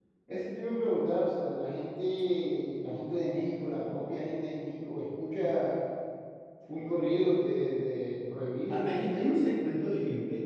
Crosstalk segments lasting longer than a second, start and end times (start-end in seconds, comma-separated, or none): none